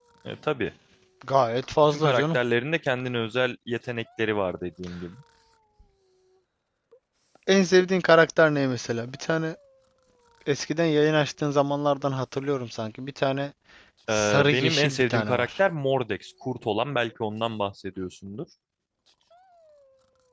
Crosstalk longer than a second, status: present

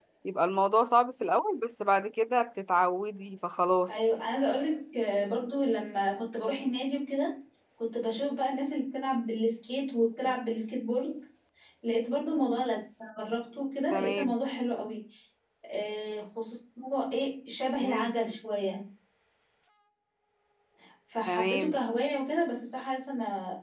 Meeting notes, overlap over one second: none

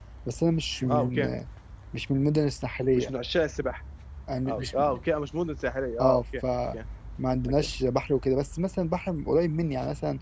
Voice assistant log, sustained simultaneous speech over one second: none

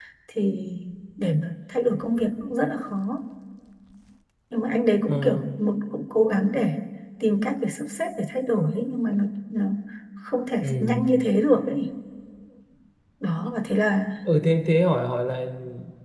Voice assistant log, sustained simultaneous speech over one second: none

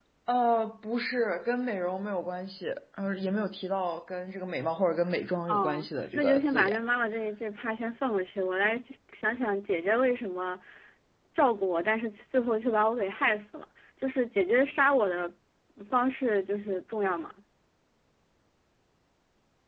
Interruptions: present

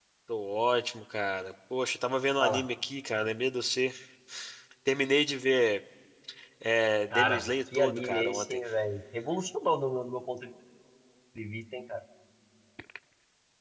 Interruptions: present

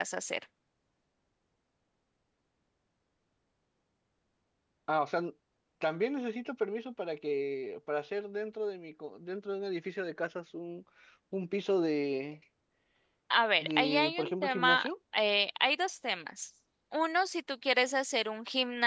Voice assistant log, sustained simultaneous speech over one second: present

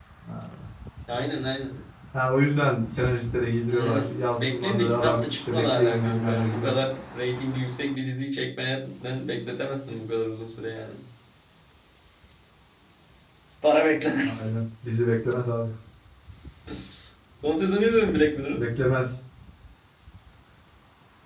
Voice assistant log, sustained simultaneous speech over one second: present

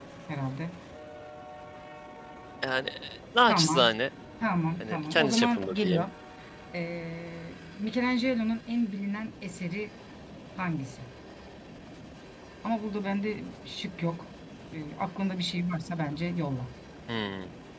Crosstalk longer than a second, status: present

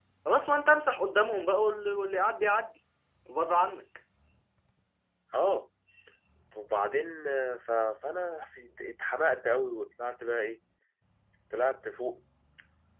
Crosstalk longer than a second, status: none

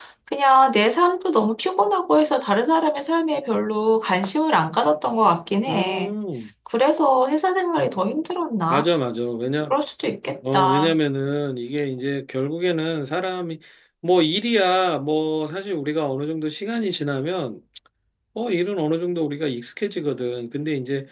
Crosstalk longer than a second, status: none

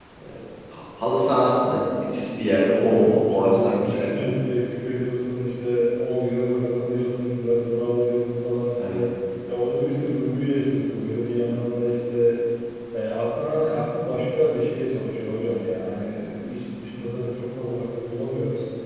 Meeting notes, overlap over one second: present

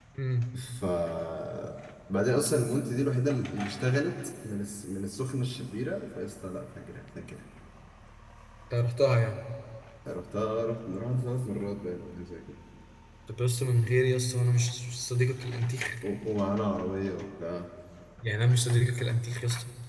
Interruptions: none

